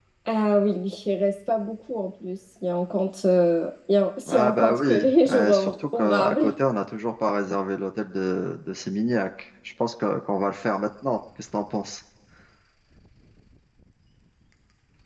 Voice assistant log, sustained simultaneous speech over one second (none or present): present